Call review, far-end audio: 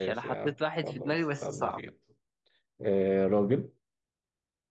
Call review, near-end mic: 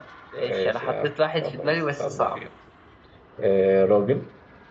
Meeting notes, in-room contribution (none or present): none